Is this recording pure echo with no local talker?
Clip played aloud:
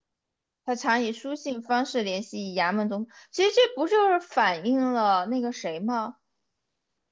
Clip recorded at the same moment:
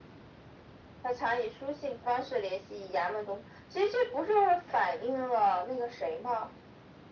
Yes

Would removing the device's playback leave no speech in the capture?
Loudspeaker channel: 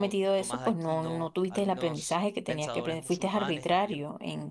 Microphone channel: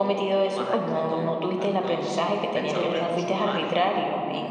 No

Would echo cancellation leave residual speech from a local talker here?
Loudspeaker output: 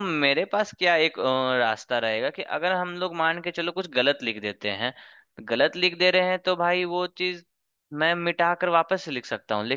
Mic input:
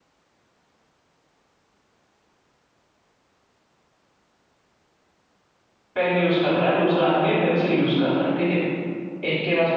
Yes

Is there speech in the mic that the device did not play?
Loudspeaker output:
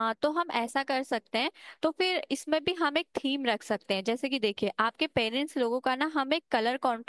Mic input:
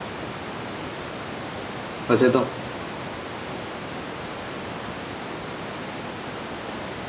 Yes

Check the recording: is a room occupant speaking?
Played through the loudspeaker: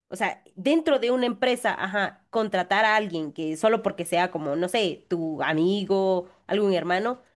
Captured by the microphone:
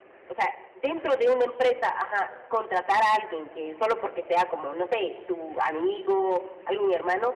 No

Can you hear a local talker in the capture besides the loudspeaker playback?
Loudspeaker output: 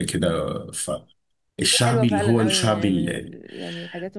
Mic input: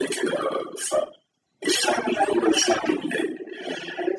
No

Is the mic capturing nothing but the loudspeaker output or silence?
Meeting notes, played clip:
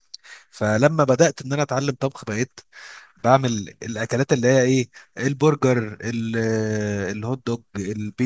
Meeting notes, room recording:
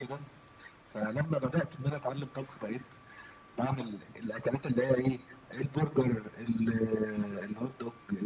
Yes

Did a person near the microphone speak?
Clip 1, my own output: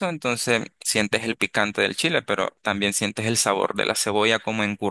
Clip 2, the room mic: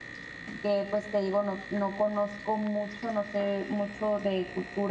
Yes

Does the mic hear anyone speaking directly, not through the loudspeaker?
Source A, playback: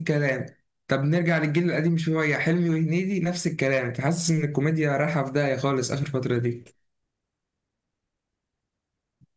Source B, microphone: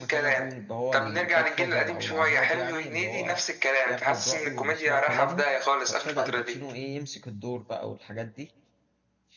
Yes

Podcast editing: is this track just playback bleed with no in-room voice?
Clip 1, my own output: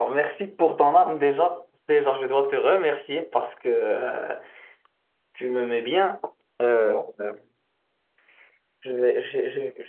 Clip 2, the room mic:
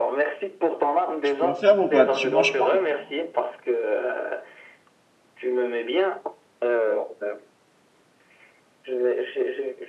No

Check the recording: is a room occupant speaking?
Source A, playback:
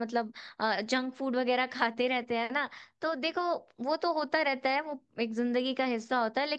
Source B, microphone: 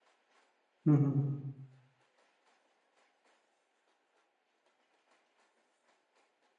Yes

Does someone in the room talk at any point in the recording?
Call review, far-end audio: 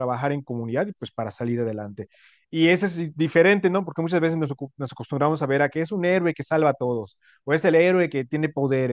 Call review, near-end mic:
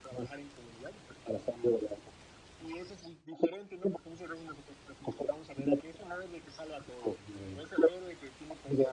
Yes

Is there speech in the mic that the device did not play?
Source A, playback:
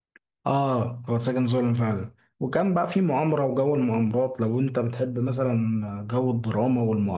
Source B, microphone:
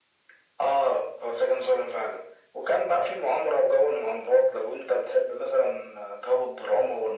No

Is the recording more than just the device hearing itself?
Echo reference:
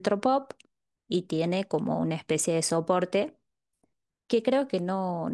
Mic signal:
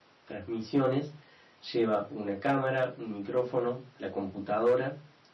Yes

